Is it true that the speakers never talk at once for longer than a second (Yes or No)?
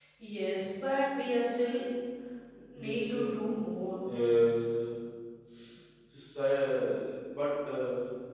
Yes